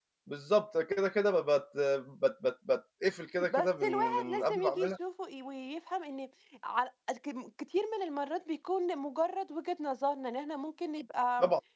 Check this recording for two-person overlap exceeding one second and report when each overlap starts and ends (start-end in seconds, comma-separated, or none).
3.5-4.9